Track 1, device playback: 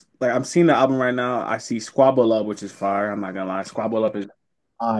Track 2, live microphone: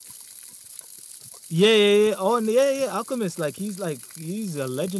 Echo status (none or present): none